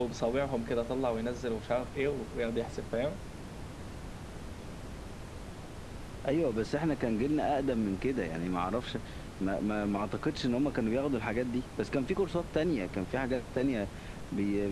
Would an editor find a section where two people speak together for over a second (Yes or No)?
No